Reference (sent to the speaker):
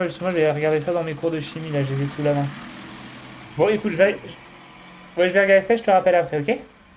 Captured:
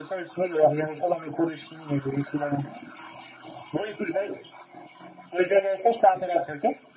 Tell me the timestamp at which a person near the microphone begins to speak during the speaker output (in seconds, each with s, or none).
none